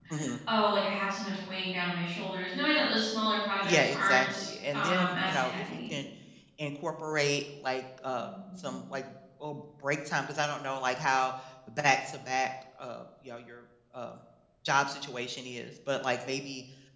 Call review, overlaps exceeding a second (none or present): present